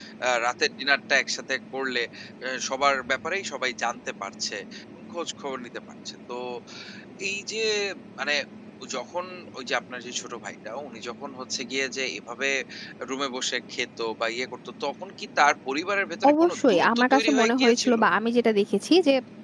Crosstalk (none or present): present